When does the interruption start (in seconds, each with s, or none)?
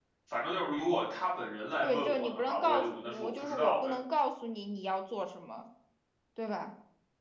1.8 s